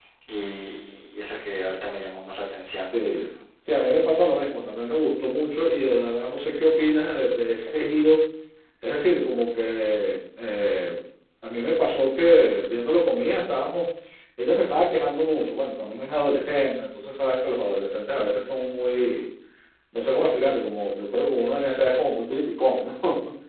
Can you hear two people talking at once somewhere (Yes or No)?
No